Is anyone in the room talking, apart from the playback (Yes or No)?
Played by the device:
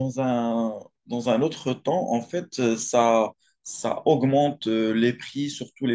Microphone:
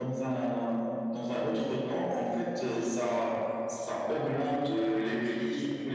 No